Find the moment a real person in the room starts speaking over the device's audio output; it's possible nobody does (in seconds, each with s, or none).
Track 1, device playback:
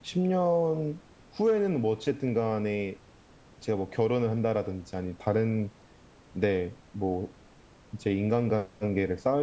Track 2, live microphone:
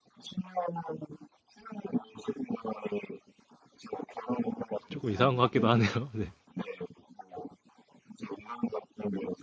4.9 s